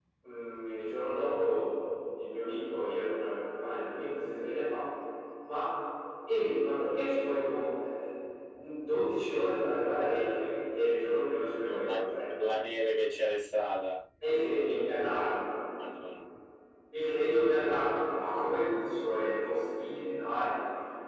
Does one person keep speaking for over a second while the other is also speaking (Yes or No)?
Yes